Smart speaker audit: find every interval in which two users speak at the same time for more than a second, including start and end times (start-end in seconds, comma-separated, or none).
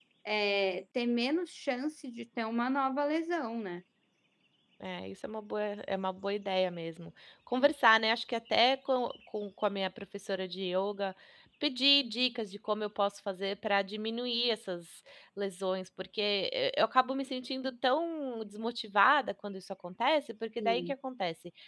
none